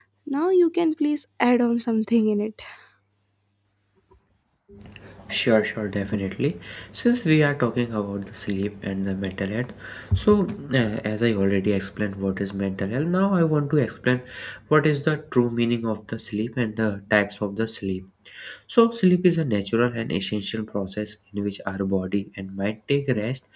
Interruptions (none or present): none